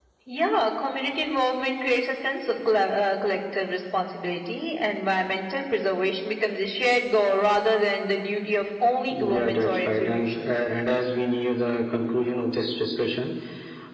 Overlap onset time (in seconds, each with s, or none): 9.1 s